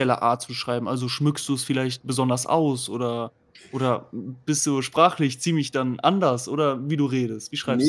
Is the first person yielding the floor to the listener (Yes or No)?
Yes